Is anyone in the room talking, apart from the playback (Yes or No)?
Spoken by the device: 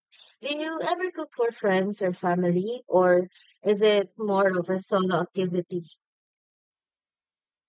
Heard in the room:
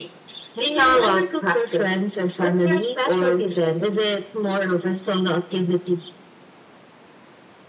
Yes